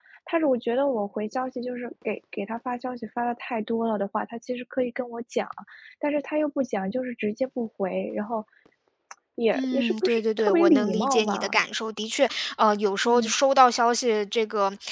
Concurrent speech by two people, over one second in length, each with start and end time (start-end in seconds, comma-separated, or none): 9.5-11.6